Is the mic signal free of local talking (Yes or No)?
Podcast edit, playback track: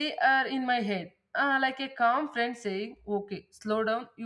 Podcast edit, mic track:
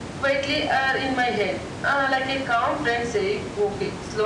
Yes